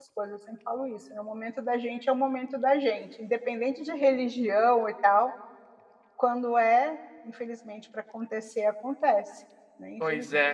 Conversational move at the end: taking over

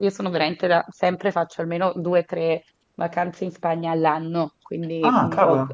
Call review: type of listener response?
listening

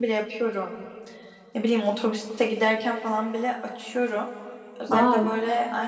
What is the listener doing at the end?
listening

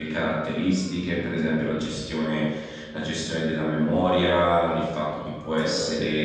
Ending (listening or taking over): listening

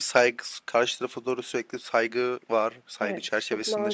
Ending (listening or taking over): taking over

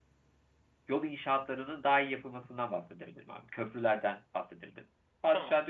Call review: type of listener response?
listening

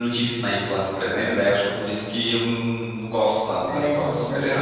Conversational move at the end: taking over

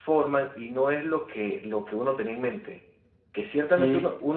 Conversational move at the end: listening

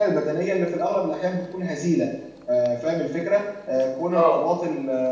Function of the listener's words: listening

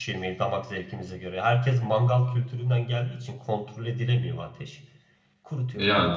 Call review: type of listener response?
taking over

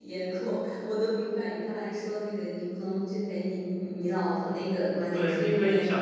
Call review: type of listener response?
taking over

